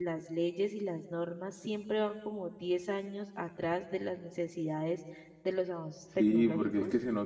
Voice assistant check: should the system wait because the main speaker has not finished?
No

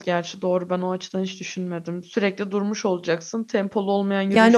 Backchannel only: No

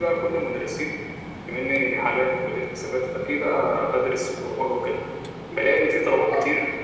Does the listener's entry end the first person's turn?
No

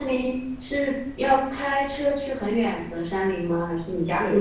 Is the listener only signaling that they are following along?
No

